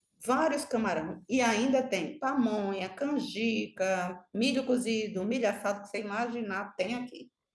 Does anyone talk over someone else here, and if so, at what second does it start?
none

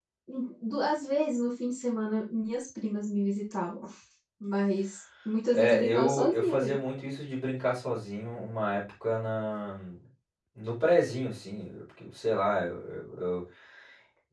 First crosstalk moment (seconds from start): 5.5 s

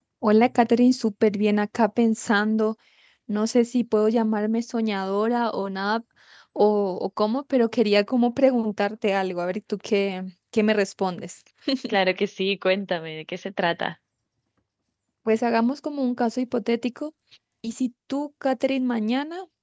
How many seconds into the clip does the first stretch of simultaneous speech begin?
none

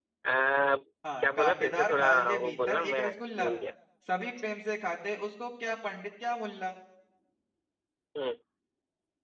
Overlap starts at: 1.2 s

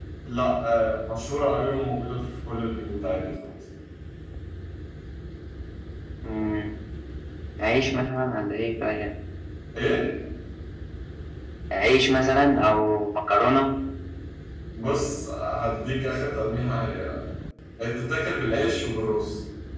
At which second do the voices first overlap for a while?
none

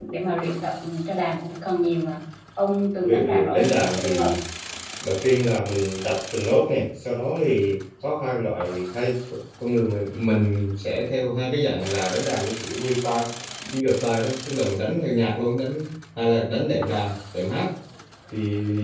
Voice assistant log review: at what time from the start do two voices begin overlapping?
3.0 s

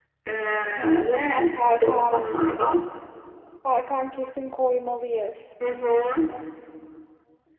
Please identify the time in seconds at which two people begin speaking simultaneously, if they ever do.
1.0 s

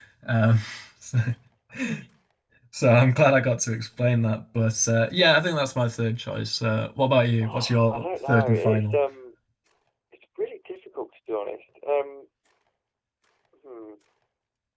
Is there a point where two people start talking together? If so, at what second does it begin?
7.4 s

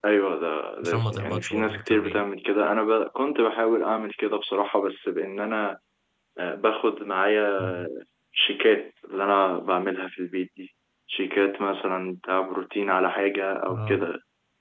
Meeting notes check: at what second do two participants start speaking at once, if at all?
0.8 s

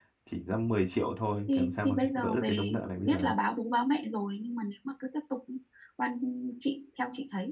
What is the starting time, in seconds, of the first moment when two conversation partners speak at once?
1.5 s

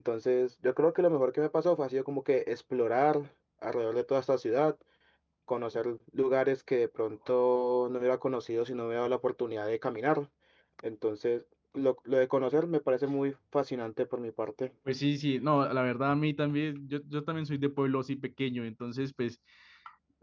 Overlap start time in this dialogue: none

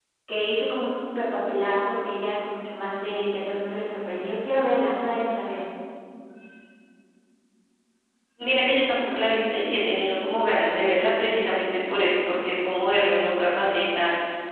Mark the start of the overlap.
none

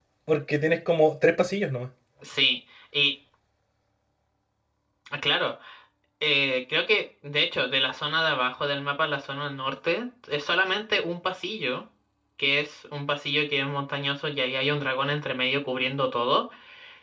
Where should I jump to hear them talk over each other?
none

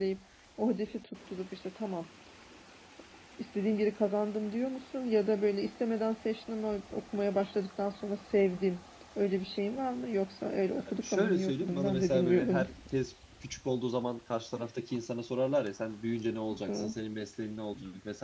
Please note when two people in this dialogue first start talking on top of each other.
11.0 s

